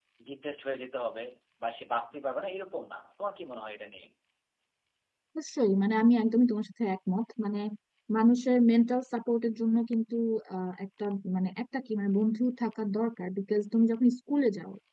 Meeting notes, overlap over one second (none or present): none